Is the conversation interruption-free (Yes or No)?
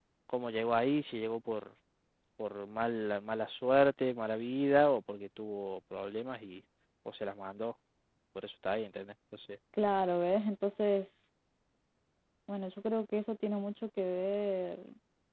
Yes